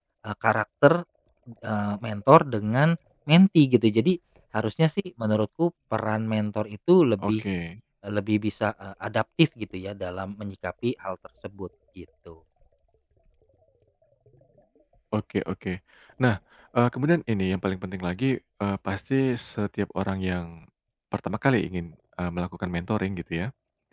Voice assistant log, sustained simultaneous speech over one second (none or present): none